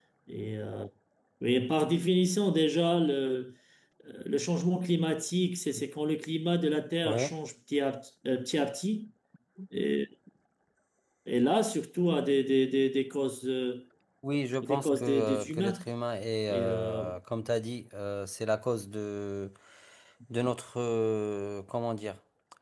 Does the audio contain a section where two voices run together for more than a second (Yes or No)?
Yes